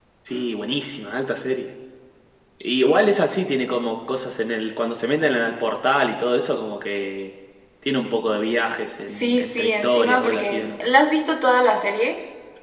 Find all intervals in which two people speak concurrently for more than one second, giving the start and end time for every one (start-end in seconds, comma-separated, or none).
9.2-10.8